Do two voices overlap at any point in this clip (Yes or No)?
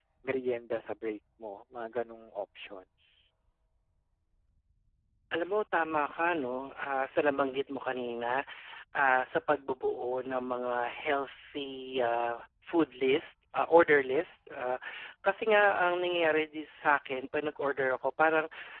No